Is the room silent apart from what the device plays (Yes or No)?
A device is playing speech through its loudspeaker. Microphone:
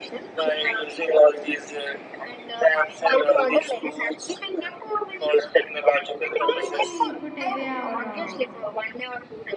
No